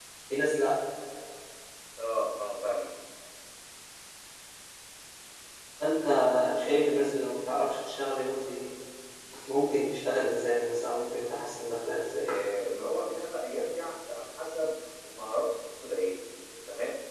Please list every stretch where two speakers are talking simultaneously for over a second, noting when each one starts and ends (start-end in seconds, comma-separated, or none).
none